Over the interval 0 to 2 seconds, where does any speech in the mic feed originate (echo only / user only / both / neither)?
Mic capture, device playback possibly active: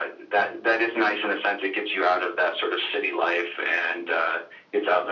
echo only